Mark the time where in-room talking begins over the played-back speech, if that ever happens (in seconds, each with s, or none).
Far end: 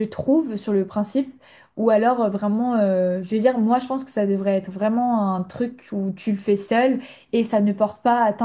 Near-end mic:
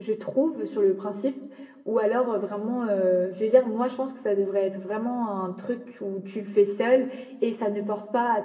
none